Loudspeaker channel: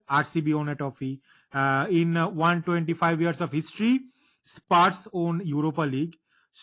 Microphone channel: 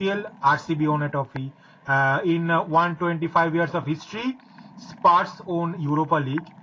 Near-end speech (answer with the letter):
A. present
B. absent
B